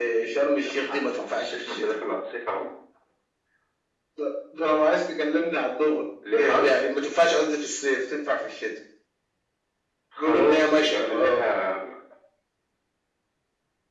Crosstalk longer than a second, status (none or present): present